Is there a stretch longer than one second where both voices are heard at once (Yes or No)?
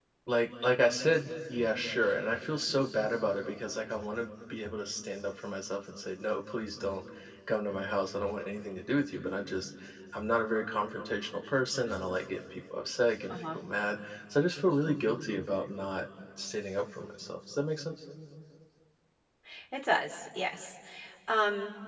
No